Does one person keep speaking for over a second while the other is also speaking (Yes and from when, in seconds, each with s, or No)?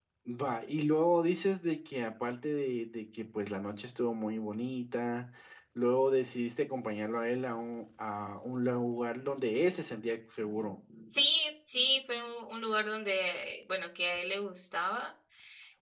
No